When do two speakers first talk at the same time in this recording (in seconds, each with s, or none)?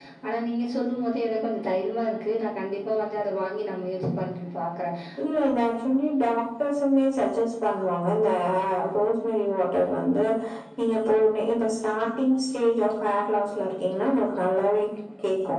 none